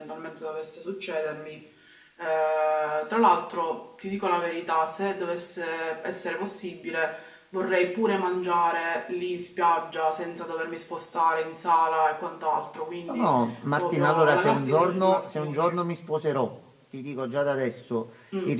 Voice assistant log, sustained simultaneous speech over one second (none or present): present